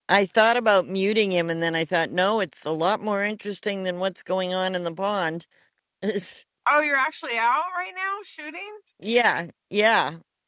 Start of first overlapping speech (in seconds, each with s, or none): none